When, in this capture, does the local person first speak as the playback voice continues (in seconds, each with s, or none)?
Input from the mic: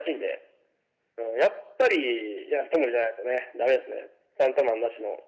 none